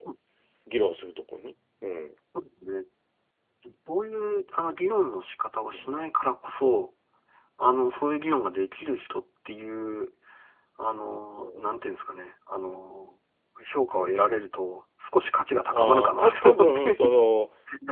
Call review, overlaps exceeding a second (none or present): present